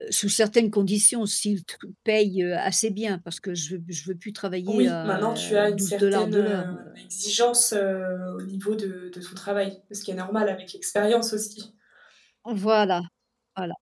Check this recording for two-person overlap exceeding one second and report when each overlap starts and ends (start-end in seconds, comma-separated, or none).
4.7-6.8